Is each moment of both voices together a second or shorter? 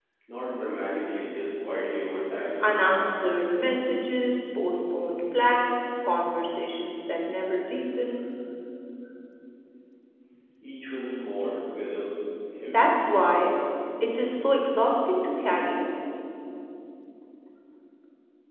Yes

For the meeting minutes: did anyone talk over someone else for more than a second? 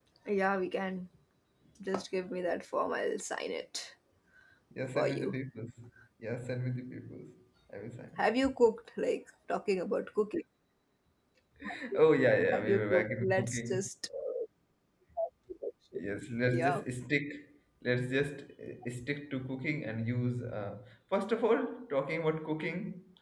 Yes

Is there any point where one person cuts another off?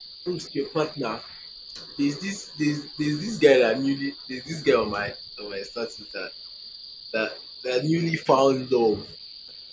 No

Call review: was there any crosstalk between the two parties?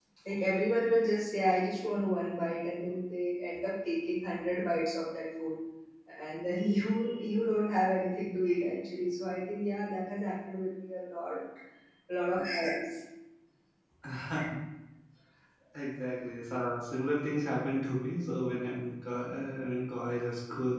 No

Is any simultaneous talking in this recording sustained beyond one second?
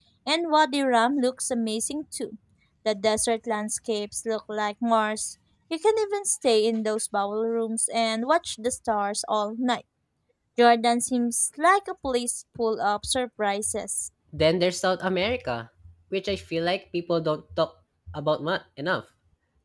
No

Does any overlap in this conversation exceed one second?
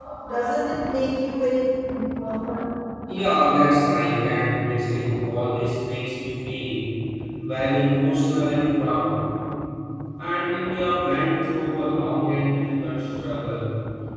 No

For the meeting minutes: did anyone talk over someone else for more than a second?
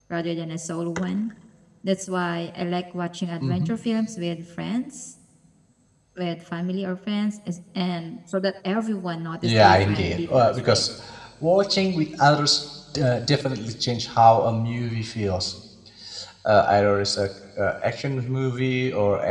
Yes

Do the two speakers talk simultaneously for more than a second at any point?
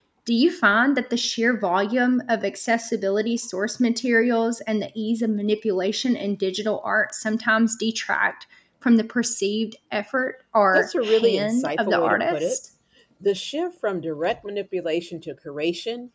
Yes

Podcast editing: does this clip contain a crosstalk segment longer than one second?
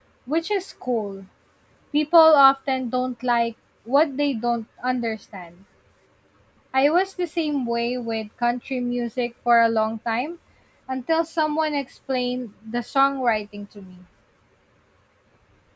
No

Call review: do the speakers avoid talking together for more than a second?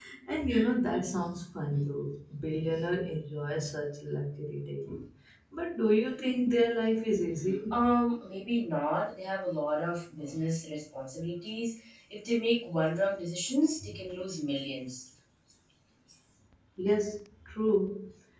Yes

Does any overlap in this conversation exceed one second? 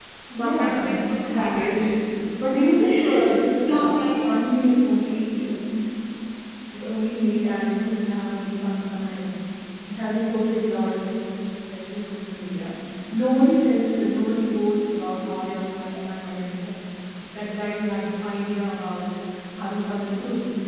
Yes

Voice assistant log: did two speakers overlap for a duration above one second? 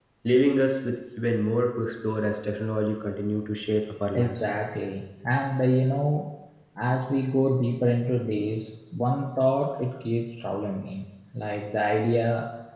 No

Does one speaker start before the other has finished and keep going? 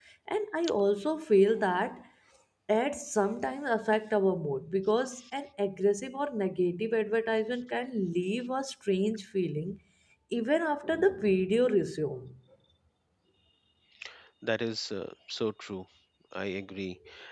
No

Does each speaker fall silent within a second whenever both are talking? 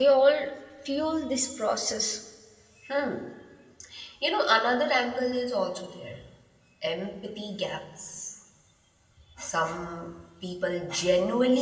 Yes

